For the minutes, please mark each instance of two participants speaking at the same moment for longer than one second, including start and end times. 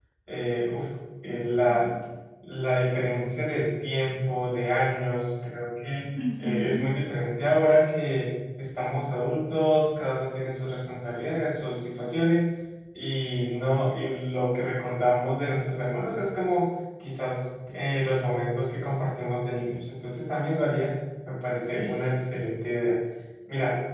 none

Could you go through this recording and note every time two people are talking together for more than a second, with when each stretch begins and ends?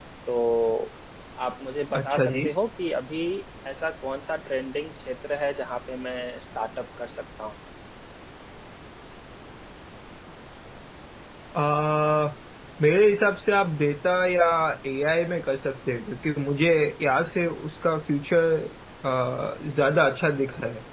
none

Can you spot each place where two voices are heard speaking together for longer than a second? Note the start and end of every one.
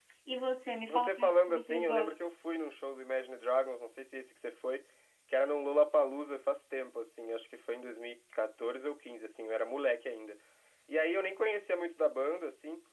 0.9-2.1

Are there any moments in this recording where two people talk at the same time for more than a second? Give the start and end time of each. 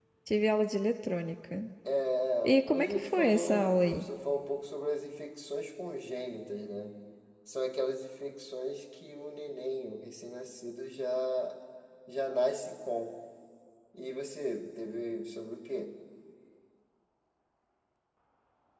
2.4-4.1

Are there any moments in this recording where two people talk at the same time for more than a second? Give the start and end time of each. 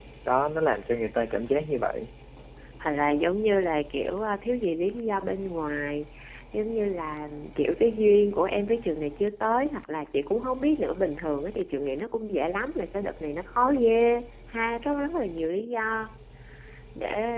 none

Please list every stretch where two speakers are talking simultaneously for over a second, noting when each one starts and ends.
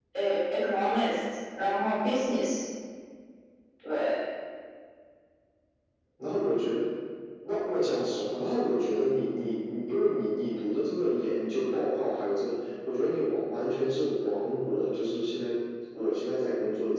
none

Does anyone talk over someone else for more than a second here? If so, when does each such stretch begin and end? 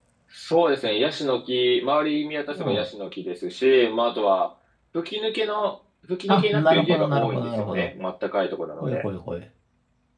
6.3-7.9

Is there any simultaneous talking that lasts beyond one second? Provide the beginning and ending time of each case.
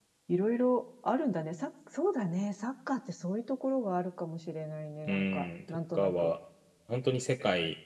5.1-6.3

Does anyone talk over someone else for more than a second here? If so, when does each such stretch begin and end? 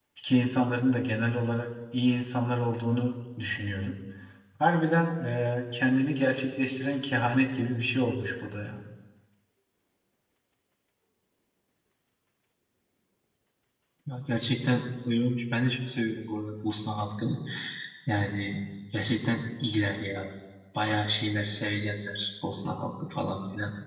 none

